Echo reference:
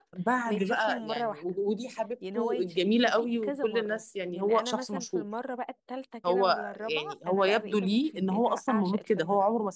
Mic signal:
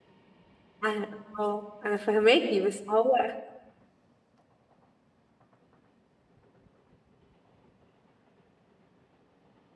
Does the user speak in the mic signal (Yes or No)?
Yes